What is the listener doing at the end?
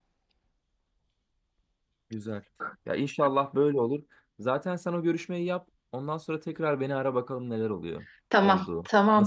taking over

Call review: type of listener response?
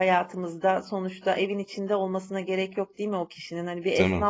listening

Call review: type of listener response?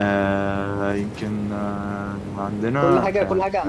taking over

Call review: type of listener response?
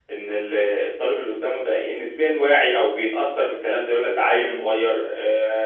listening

